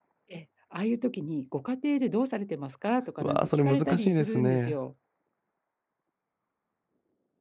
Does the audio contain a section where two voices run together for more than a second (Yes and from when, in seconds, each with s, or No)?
Yes, from 3.2 s